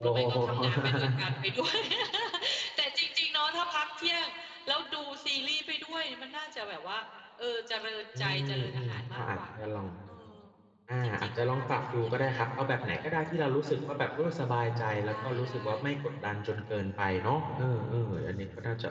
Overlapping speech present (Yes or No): Yes